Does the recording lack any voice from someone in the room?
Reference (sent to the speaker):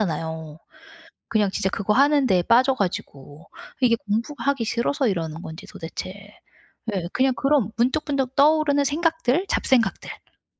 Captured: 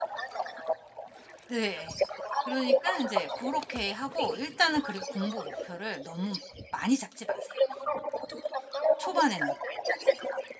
No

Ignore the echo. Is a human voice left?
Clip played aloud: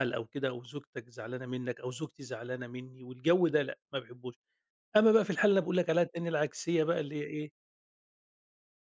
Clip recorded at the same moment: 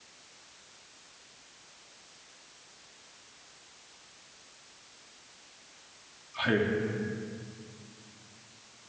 Yes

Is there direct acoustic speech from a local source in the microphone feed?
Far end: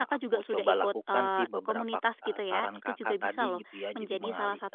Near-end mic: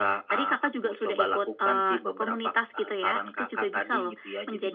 No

